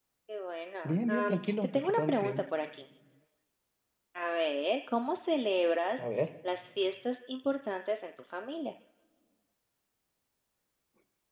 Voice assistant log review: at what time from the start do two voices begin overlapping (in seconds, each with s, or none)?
0.8 s